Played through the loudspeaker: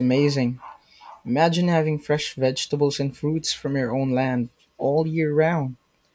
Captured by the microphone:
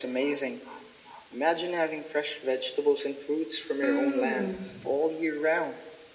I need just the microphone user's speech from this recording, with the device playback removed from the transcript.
Mm,

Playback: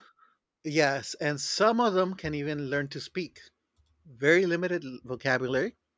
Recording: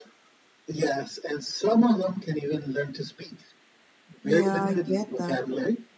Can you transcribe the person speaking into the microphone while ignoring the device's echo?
Yeah, I get that.

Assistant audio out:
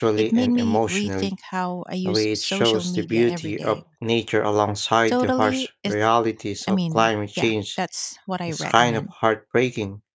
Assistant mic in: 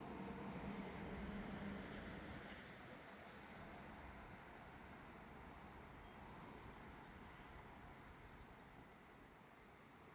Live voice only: none

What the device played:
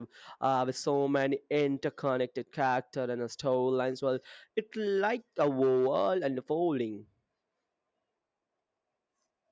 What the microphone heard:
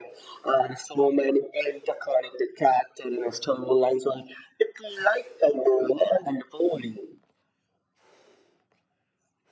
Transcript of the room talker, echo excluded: none

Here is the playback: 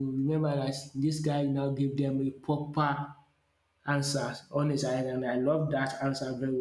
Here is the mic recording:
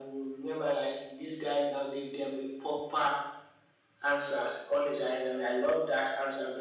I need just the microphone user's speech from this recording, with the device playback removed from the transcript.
none

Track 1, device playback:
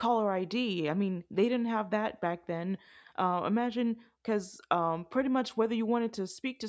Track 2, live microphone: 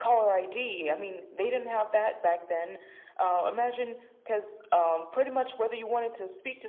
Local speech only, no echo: none

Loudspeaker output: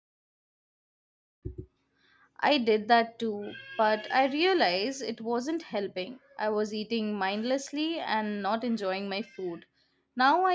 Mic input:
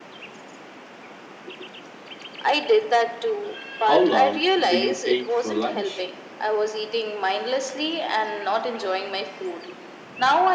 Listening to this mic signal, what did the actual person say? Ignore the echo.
How long do you take for lunch?

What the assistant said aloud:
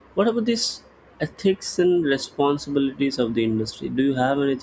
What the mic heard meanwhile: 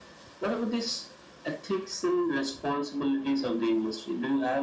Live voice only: none

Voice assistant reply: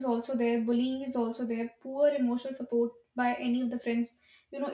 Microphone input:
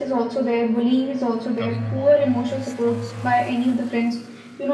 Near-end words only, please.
talking about all these things, you know,

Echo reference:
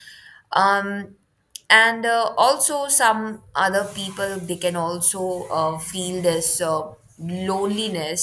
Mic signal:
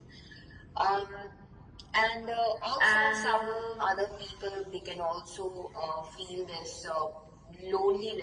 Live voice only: And um,

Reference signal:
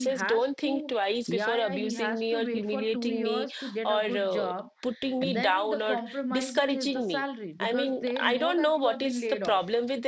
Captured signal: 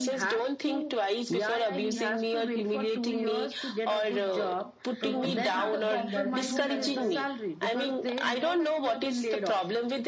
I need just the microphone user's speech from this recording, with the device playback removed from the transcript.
promotions happening. There is no benefits.

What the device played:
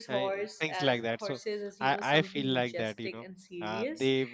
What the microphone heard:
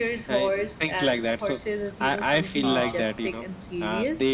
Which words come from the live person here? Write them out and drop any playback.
Um,

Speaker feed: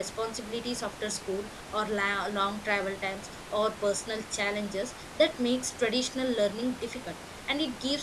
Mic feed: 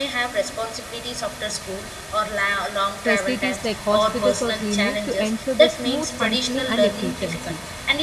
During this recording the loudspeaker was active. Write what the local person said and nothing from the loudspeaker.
facilities like hospitals or clinic to ensure the smooth functioning and efficiency.

